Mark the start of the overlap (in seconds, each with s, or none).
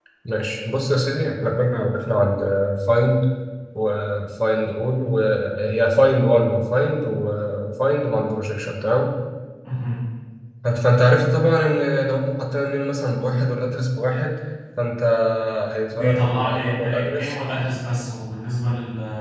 15.9 s